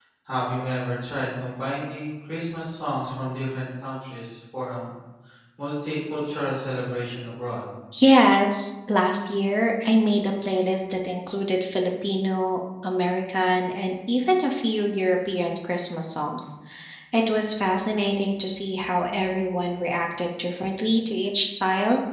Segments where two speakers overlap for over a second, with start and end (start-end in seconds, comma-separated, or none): none